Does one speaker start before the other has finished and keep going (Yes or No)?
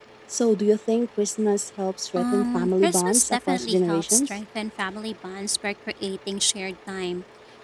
Yes